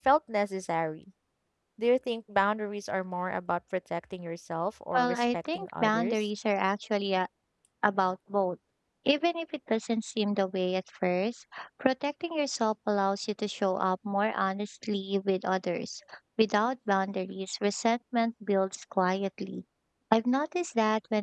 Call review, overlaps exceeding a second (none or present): present